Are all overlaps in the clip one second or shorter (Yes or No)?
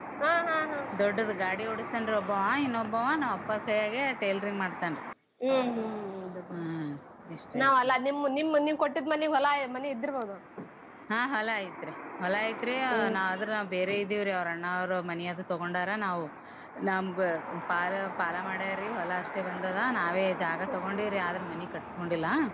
Yes